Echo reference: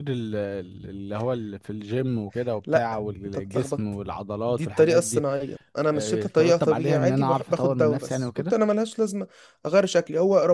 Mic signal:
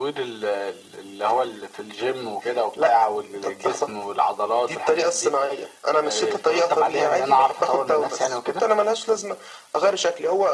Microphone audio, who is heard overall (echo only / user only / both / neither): echo only